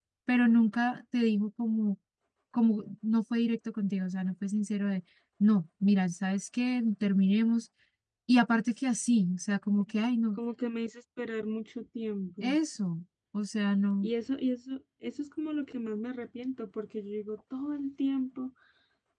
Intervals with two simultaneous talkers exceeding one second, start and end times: none

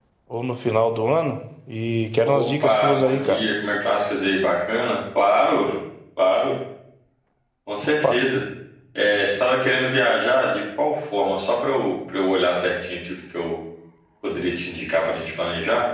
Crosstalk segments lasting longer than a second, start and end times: 2.2-3.4

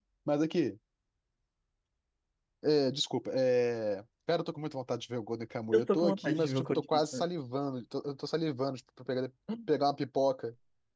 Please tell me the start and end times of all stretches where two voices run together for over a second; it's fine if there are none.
5.7-7.2

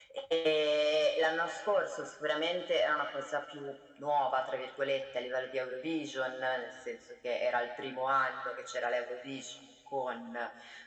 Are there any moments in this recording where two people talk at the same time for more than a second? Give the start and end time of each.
none

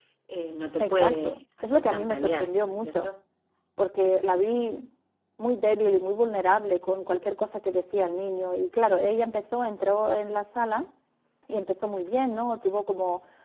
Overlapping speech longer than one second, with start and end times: 0.8-3.1

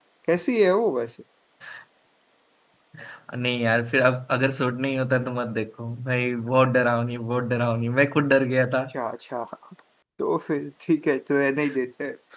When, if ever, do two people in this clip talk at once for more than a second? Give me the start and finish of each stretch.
none

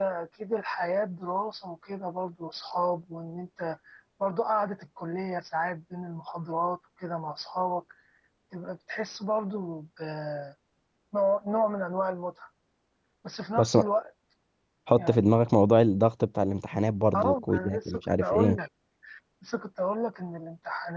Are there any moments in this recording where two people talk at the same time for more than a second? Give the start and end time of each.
17.1-18.6

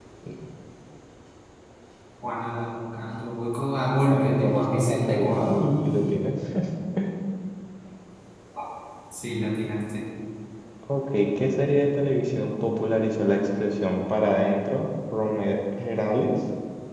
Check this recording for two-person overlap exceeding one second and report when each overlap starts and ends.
4.1-5.6

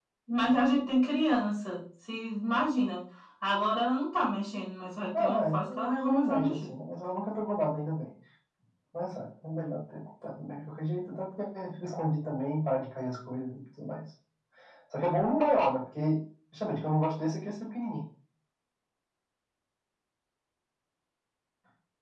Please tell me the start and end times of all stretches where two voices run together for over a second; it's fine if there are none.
5.2-6.7

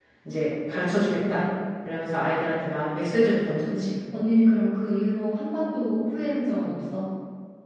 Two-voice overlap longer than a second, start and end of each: none

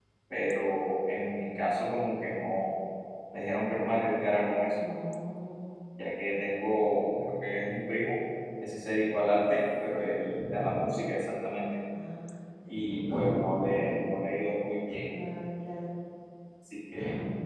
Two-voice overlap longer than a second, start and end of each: none

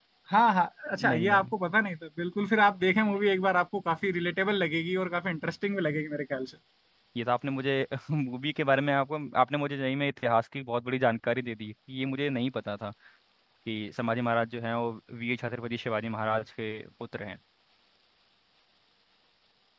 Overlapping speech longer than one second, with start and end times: none

